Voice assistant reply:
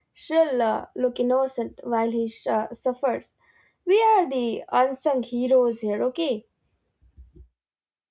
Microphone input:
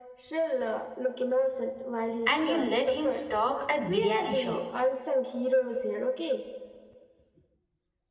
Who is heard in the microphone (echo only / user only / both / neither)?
both